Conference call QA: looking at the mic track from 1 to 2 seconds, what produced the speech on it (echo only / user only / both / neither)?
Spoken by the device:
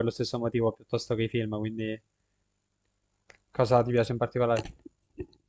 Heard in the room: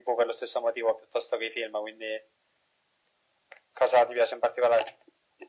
echo only